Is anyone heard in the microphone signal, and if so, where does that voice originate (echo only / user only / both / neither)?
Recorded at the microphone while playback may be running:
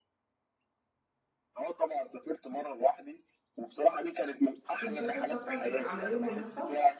both